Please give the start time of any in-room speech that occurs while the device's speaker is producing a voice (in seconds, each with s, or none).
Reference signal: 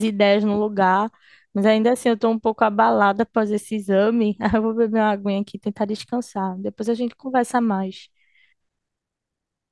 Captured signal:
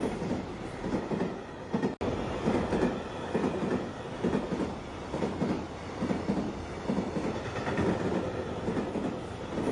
none